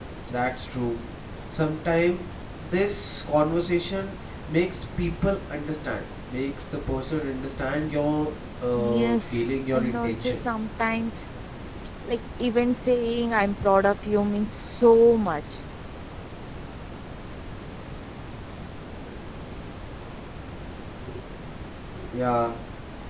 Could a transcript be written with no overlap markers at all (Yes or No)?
No